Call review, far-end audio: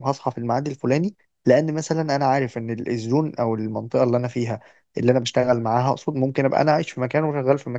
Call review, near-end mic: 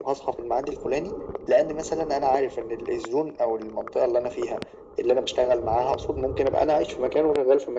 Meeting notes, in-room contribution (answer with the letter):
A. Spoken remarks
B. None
B